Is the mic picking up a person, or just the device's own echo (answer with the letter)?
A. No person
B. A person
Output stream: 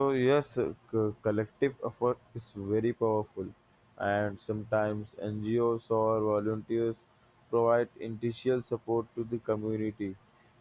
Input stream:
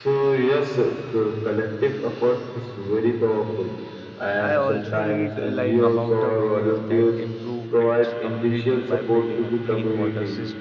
B